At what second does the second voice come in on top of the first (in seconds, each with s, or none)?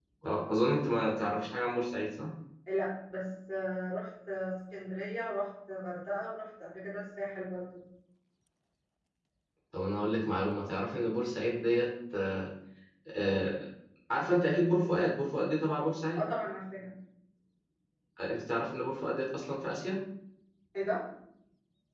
none